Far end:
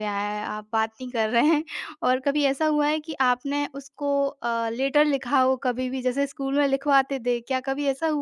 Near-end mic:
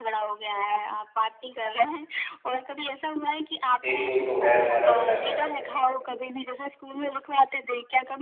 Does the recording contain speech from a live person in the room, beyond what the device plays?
Yes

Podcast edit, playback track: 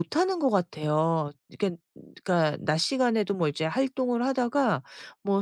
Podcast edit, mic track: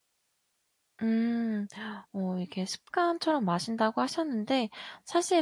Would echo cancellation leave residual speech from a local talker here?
Yes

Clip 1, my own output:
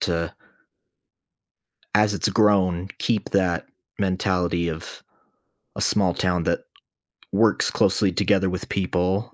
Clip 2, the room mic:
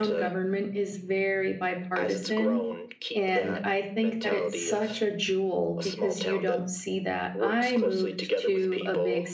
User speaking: Yes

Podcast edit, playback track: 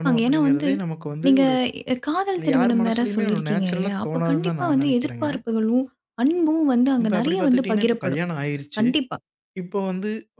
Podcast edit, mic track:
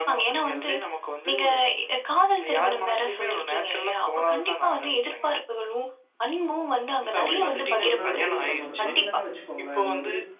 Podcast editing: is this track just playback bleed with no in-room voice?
No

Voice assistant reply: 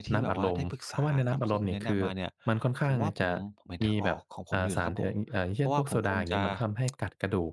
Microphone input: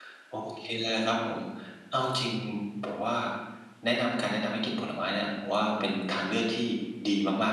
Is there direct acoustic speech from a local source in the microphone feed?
Yes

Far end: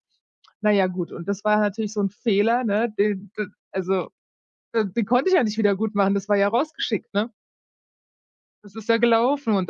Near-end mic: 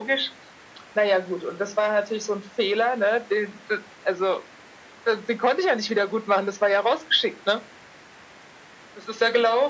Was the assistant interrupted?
No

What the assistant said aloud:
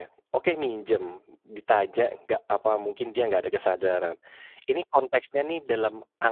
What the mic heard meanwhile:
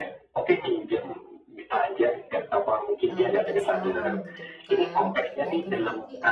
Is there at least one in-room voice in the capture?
Yes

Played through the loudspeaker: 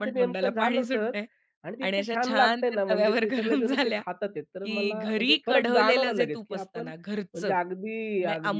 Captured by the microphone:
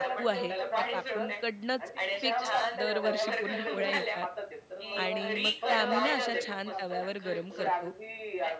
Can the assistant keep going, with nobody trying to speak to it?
No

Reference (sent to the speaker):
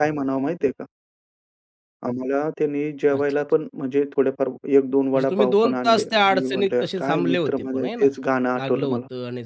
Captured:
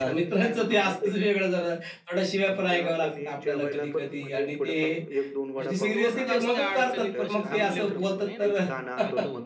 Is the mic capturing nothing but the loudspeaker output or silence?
No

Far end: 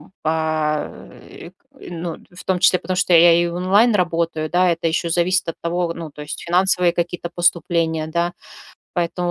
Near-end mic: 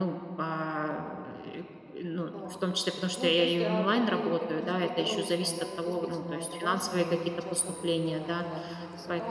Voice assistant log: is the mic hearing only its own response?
No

